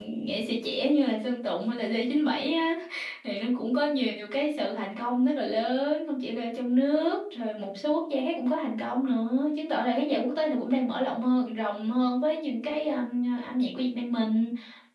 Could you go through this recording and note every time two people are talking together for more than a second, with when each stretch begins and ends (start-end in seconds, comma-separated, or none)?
none